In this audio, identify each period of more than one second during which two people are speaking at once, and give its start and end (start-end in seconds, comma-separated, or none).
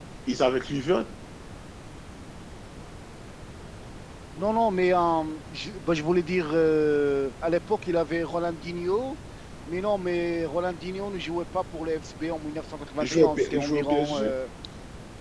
13.0-14.3